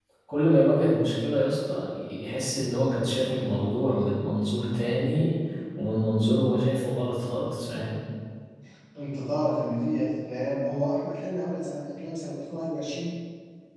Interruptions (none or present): none